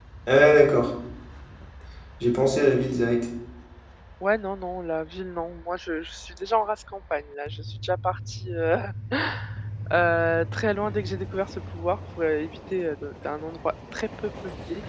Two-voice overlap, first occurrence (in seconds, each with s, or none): none